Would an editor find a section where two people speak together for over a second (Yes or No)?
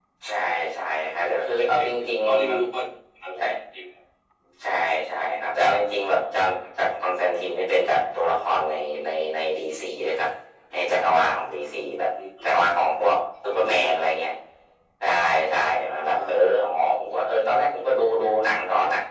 Yes